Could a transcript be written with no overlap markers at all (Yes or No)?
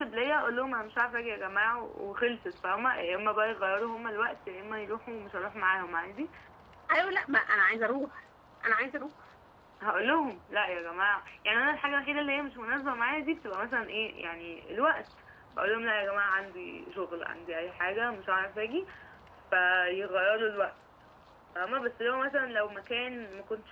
Yes